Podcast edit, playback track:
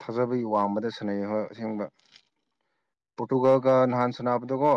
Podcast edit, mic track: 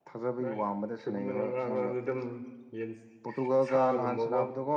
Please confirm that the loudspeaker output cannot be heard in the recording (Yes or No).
No